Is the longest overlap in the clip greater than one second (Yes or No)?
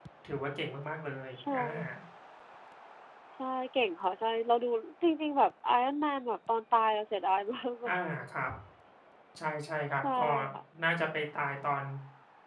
No